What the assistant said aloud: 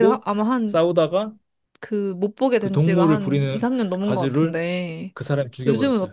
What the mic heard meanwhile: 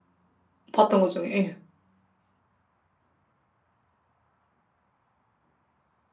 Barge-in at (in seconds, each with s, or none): 0.7 s